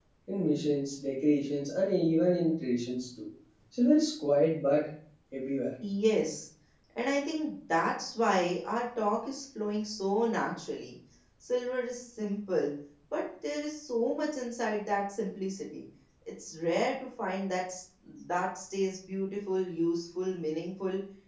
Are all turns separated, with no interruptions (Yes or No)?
Yes